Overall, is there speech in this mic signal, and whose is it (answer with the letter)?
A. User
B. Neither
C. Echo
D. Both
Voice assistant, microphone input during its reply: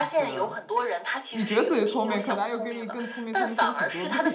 D